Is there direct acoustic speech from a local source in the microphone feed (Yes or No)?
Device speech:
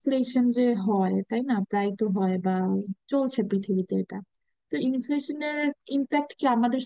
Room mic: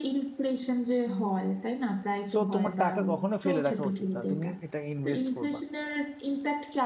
Yes